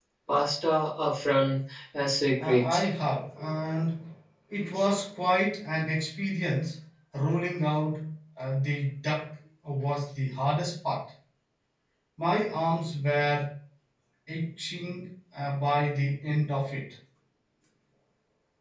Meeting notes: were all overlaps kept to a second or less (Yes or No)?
Yes